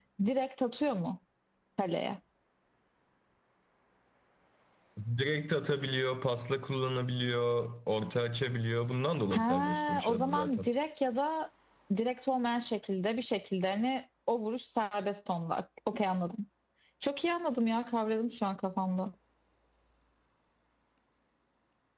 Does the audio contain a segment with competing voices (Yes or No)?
Yes